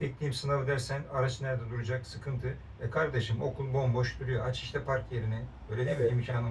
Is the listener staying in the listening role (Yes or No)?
Yes